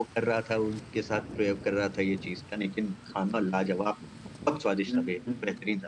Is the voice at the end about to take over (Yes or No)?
No